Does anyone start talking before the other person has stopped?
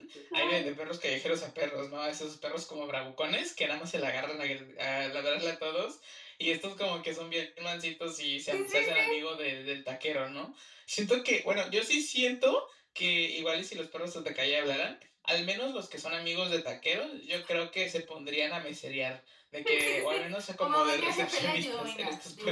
Yes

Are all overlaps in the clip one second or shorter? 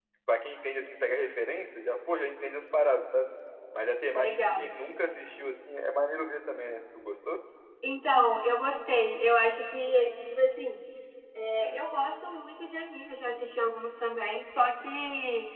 Yes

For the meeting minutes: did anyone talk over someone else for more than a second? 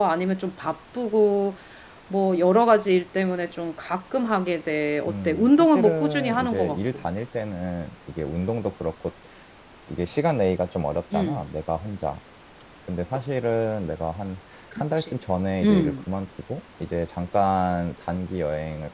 Yes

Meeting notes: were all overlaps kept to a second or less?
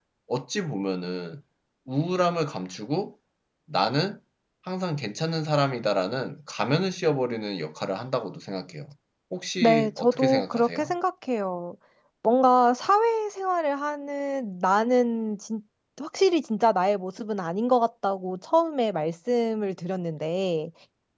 No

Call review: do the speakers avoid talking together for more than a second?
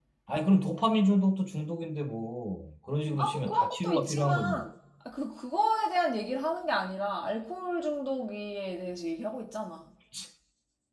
No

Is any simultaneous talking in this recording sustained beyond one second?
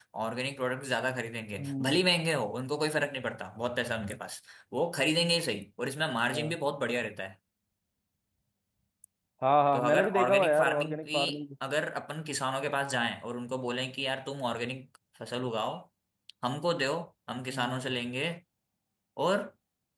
Yes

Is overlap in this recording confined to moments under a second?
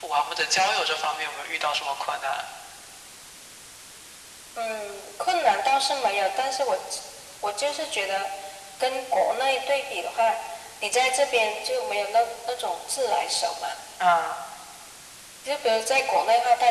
Yes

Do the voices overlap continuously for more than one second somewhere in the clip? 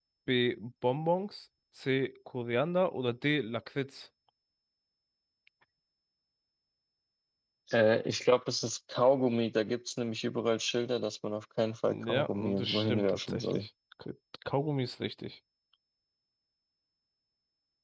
Yes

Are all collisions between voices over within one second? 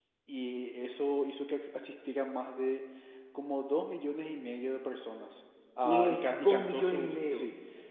No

